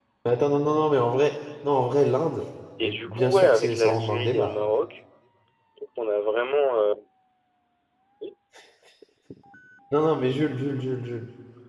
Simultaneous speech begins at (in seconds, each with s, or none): 2.8 s